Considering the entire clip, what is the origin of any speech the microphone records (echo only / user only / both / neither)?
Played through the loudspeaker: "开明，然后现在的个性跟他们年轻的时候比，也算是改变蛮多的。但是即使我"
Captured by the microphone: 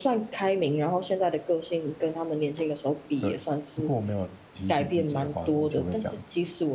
both